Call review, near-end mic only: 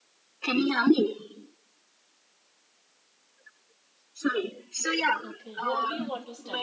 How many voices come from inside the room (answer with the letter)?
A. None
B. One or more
B